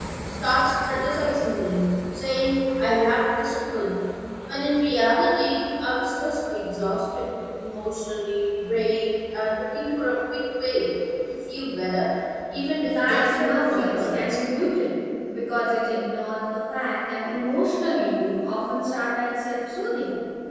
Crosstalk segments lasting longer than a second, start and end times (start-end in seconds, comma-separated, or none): 12.9-14.4